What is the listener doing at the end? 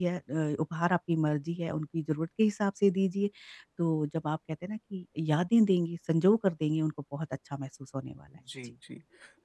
taking over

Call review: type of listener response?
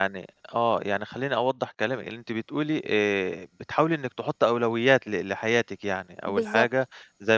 listening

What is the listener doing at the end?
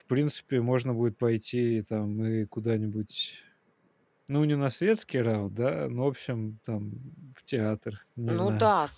taking over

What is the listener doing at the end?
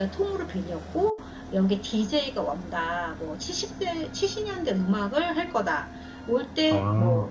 listening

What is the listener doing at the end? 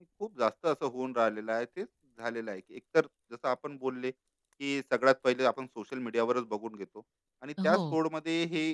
listening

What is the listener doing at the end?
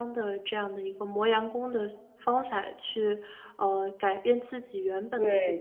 taking over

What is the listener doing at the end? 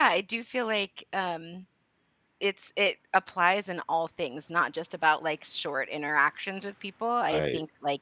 listening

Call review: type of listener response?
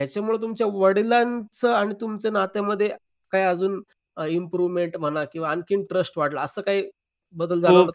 taking over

